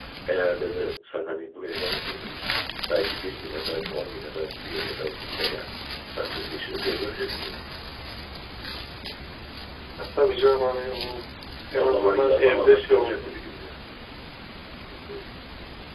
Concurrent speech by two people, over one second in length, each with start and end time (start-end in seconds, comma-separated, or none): 11.7-13.3